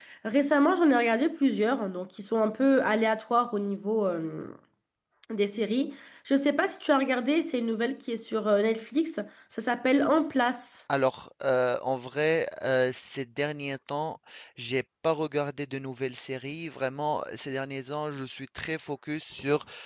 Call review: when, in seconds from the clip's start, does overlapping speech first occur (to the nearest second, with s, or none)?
none